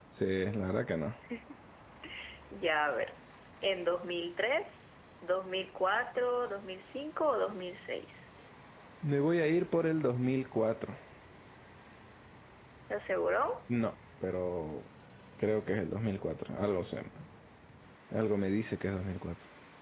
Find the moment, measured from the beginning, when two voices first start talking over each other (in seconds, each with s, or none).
none